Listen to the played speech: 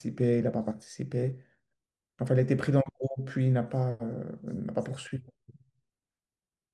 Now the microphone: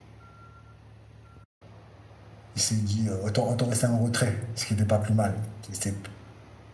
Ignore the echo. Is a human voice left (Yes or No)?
Yes